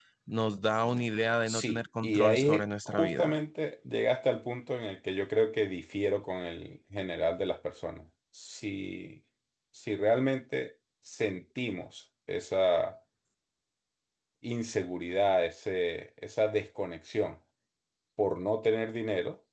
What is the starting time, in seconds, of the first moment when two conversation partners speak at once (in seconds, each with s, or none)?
1.5 s